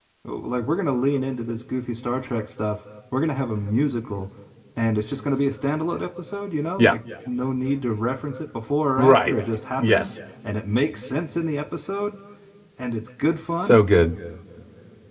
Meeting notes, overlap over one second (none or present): none